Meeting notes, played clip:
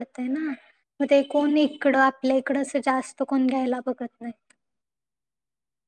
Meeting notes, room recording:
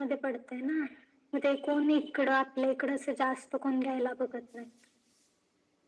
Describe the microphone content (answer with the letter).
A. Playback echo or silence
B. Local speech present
A